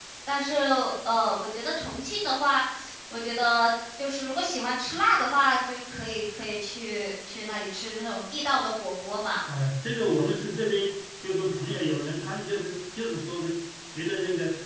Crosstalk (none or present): none